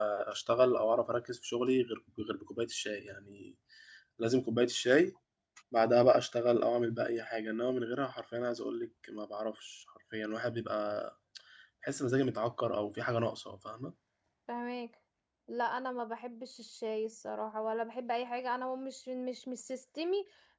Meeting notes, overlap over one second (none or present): none